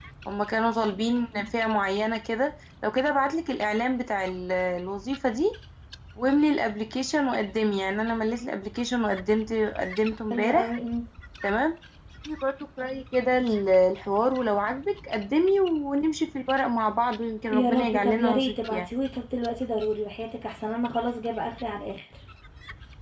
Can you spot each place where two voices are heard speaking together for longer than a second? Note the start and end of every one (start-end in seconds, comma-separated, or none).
17.5-18.9